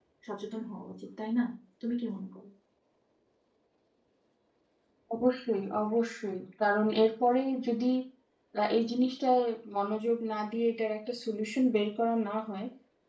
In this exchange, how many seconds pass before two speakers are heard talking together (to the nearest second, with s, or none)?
none